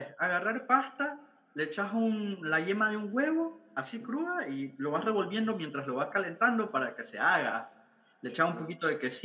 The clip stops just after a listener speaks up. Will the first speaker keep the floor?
Yes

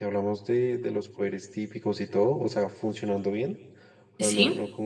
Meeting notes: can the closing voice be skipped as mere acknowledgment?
Yes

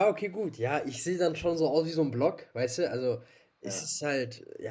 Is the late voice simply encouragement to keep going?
Yes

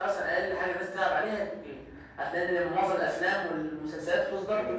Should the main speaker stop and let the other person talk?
Yes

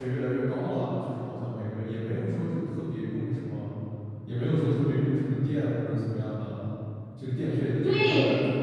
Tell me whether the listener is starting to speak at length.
No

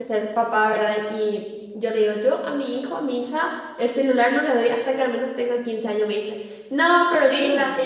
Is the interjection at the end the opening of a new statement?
No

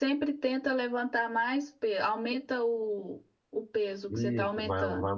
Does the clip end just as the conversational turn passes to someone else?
Yes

